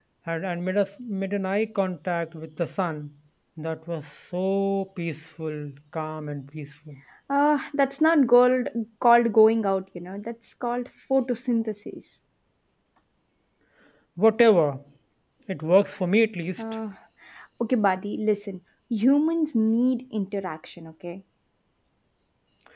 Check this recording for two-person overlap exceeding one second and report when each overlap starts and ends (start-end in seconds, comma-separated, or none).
none